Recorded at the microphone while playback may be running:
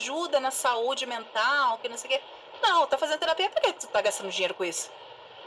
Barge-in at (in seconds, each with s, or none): none